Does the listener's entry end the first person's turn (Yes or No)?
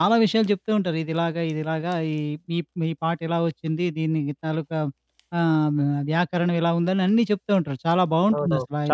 Yes